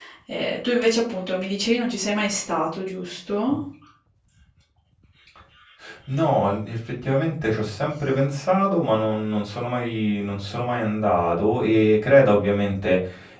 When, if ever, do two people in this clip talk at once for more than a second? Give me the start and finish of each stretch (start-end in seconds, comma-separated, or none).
none